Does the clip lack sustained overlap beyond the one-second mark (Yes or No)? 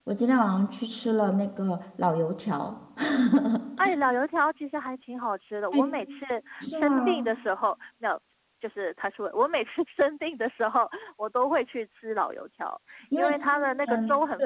No